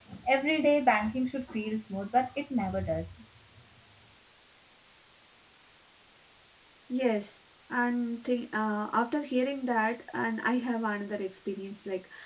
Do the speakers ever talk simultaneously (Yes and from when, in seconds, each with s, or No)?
No